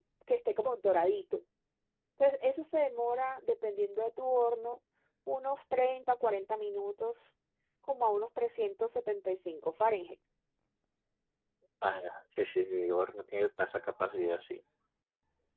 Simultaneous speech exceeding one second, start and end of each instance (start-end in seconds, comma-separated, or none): none